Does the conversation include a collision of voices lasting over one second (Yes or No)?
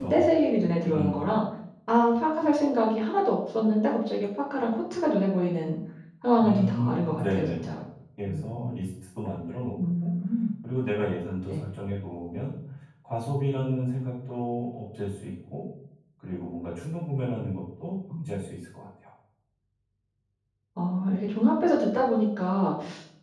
Yes